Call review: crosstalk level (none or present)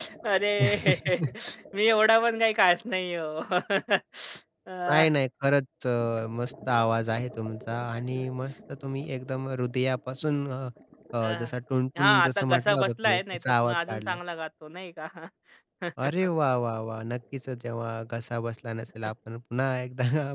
present